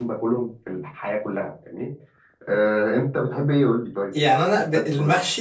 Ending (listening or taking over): taking over